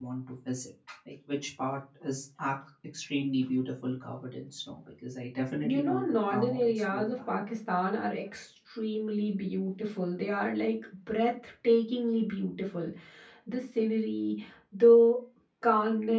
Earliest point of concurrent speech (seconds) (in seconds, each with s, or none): 5.6 s